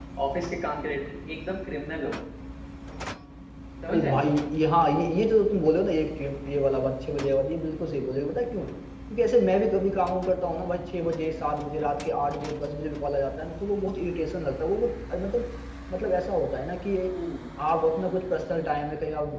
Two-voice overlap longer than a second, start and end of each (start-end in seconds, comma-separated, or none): none